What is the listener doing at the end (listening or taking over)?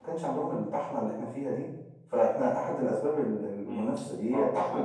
taking over